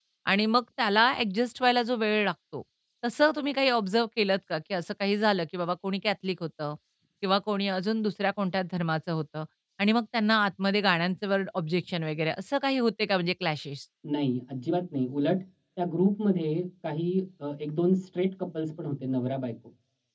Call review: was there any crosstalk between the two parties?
No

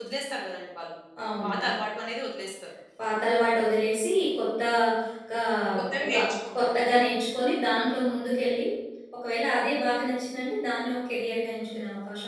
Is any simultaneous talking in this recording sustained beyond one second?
No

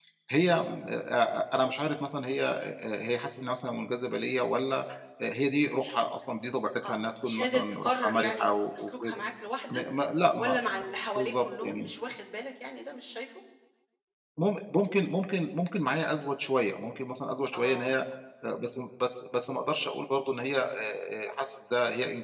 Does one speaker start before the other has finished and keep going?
Yes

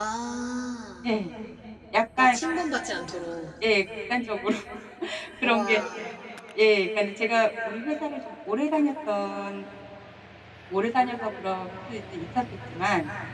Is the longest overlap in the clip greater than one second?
No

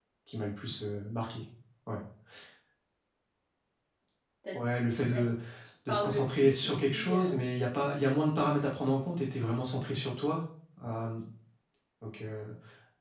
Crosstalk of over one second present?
Yes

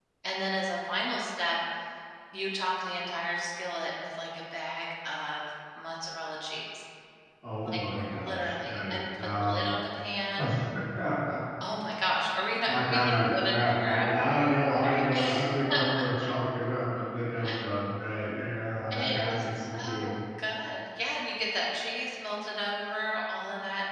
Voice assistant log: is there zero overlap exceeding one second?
No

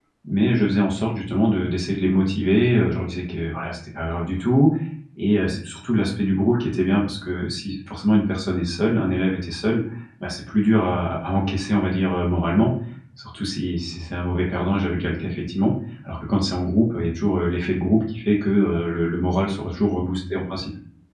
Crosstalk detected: No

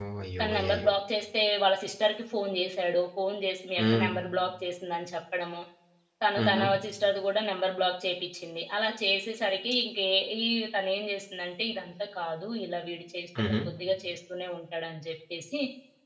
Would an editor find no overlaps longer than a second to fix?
Yes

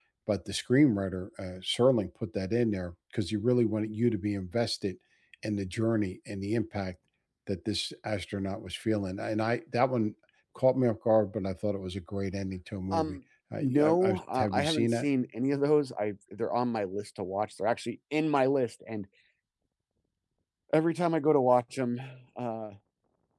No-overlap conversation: No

